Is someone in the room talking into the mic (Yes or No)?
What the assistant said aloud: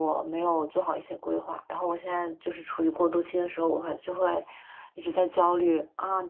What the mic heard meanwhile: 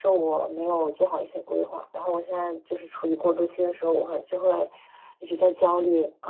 No